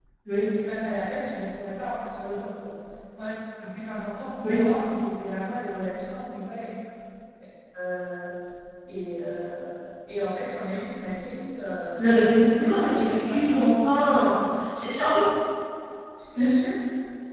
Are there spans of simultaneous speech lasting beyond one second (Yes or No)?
Yes